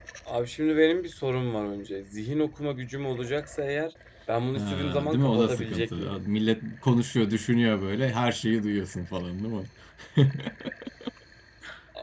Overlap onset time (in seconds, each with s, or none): 4.5 s